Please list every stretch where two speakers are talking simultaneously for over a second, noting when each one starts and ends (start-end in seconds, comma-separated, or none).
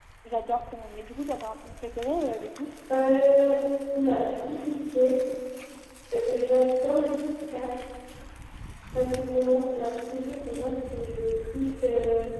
none